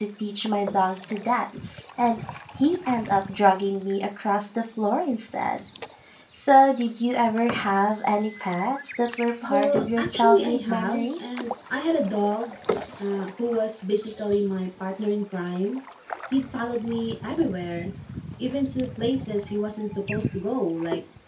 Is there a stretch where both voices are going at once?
Yes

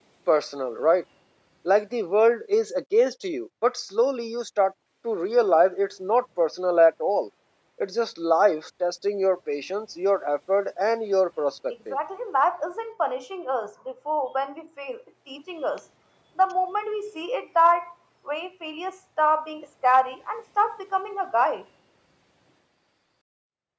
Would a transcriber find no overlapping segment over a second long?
Yes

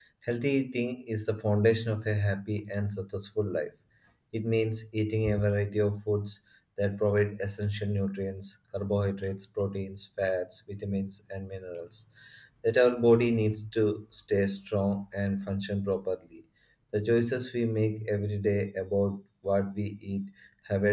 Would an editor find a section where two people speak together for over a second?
No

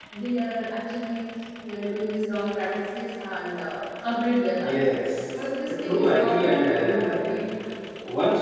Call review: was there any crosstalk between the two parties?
Yes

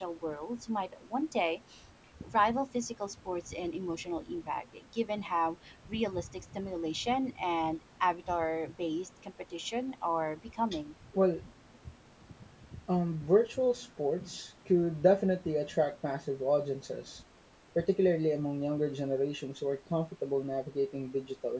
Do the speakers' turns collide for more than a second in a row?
No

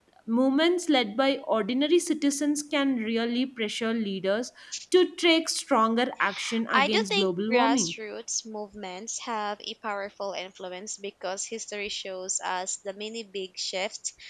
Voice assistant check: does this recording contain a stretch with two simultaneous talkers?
Yes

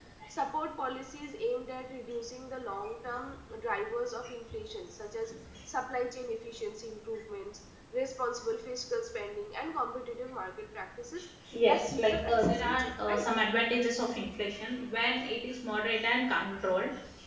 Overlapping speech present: Yes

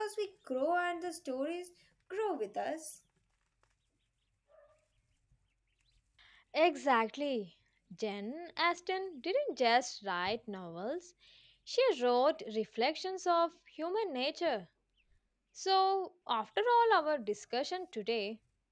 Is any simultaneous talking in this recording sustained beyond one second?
No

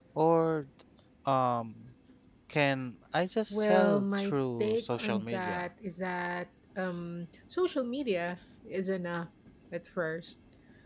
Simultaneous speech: Yes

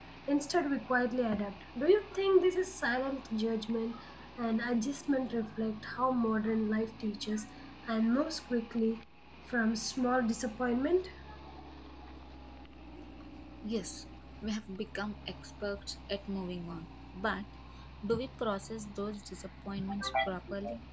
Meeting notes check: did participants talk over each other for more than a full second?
No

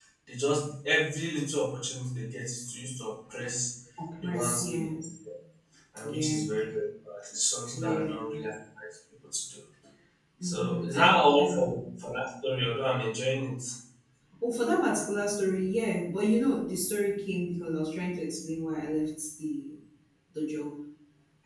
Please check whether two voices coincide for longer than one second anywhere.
Yes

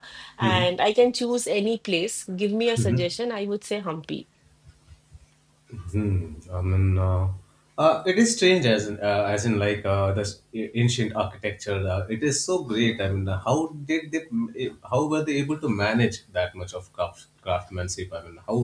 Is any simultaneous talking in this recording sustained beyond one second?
No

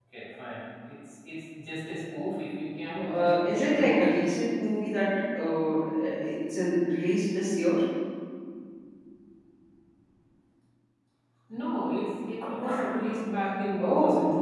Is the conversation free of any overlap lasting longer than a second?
No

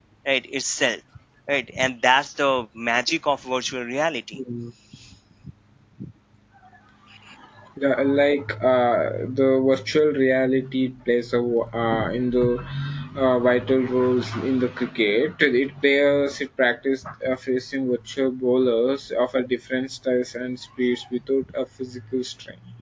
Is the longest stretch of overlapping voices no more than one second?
Yes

